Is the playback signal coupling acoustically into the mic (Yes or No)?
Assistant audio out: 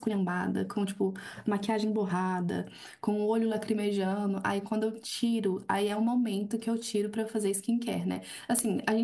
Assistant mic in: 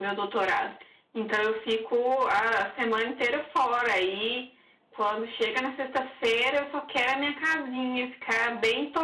No